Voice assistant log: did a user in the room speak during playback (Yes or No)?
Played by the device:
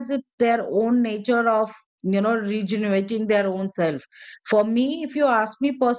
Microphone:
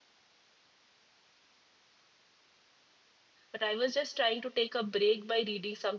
Yes